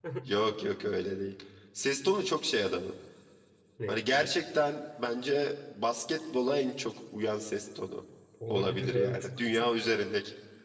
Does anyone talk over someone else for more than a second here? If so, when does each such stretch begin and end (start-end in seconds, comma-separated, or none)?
8.5-9.8